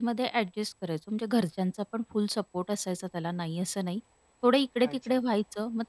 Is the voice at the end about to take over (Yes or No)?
No